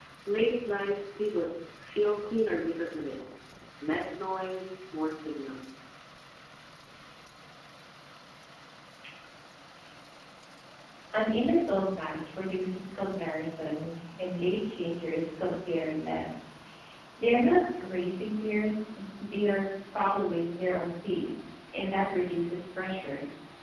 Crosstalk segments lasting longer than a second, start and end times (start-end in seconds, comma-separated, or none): none